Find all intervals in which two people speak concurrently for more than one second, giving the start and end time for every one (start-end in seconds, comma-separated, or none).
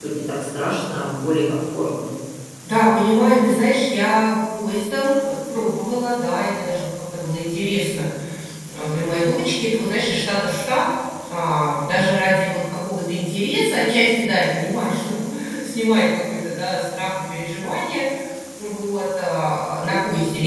none